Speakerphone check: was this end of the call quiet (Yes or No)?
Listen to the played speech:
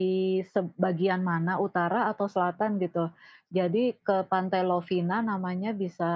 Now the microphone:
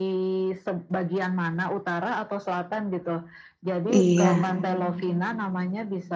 No